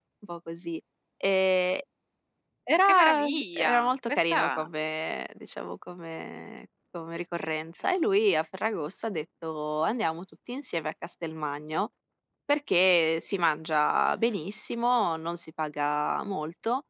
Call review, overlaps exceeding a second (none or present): present